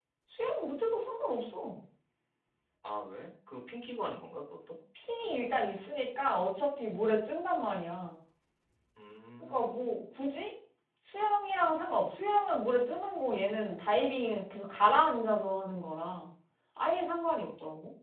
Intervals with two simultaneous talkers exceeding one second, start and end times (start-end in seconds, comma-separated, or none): none